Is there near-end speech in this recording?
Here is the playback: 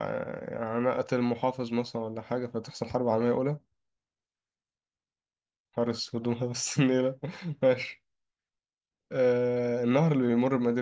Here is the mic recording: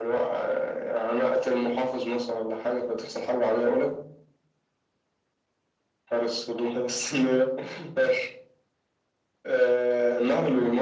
No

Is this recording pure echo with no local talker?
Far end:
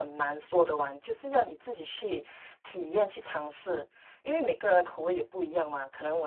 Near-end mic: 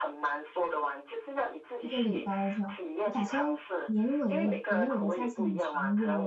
No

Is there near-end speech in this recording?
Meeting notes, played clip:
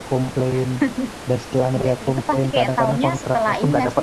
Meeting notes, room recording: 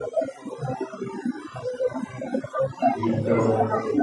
Yes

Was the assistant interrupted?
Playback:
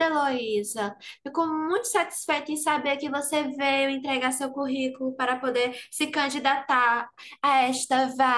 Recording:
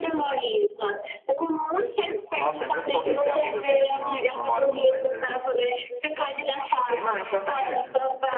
Yes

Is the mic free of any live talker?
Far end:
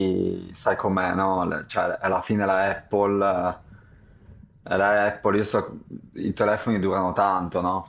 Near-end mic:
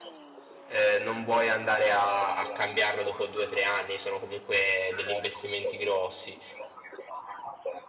No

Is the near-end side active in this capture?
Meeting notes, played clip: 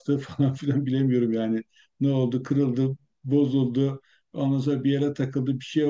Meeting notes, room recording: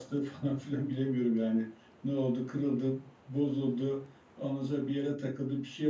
No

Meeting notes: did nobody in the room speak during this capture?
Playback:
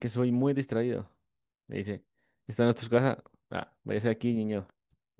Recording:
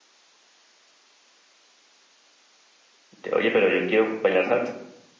No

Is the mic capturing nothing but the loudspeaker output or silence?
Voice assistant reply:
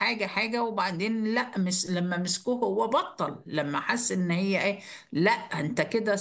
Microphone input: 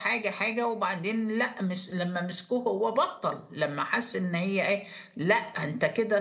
Yes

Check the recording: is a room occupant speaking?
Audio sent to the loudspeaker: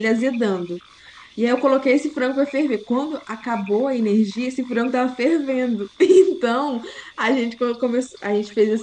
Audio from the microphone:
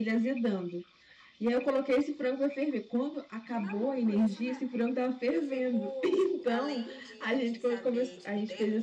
Yes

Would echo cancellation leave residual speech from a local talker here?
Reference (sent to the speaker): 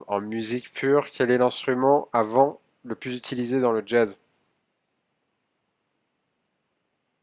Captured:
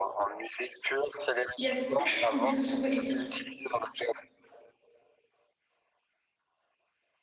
Yes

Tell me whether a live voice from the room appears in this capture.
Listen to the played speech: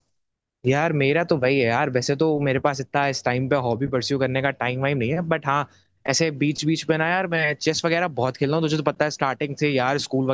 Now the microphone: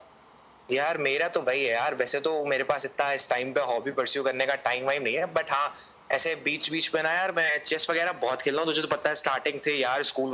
No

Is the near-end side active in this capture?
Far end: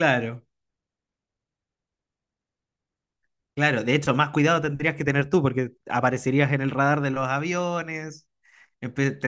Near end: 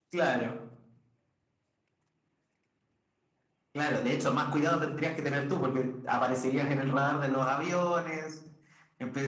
No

